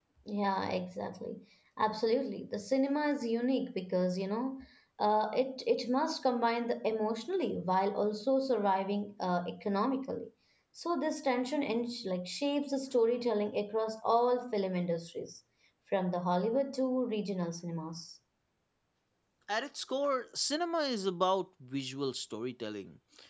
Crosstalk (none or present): none